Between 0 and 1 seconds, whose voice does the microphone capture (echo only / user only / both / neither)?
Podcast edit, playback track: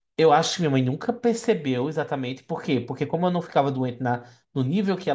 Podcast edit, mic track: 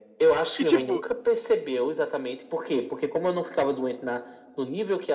both